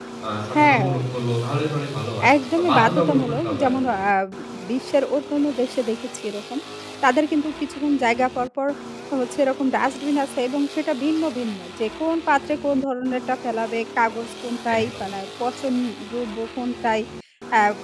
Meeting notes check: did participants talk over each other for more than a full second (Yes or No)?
Yes